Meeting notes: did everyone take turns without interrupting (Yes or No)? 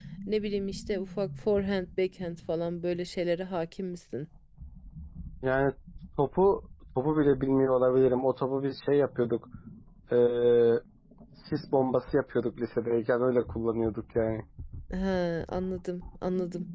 Yes